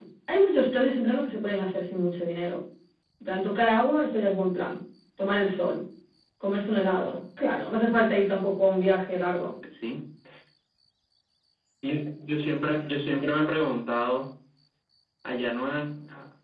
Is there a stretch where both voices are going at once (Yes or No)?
No